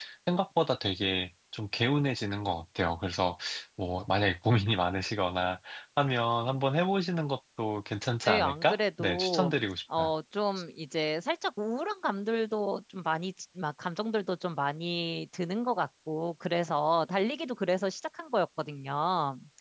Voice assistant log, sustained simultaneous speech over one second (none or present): present